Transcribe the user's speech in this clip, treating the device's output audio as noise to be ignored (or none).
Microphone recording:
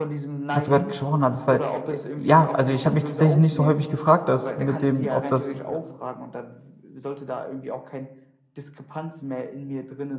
was du grad gesprochen hattest, weil, äh ja, also, ich habe mich tatsächlich nicht so häufig gefragt, das mit dem, ob das äh,